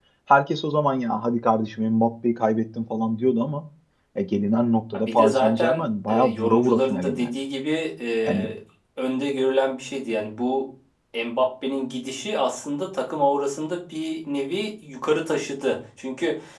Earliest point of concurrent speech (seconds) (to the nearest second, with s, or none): 5 s